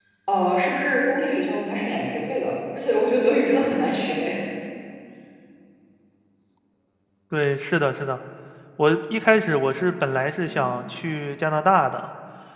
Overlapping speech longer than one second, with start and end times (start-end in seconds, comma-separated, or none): none